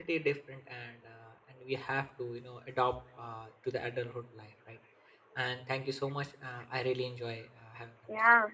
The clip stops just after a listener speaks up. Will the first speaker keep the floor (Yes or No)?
No